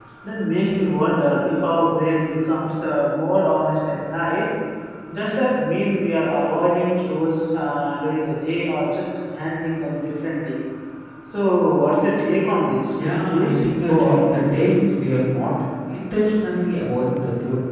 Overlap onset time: 12.9 s

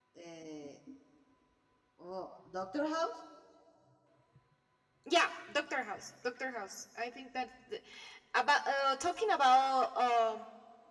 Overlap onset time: none

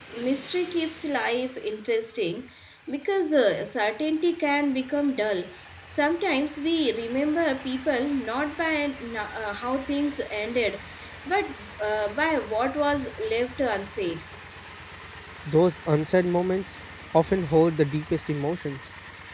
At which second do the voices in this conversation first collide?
none

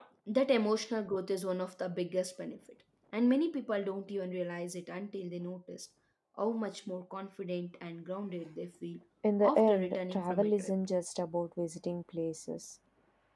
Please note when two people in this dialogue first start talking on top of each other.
9.4 s

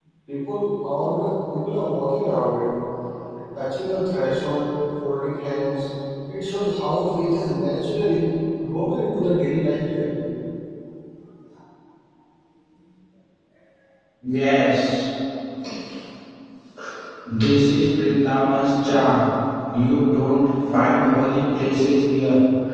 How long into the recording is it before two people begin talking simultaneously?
none

